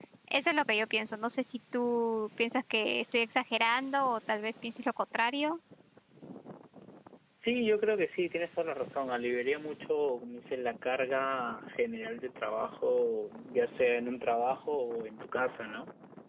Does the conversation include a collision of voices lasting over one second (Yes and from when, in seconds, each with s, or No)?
No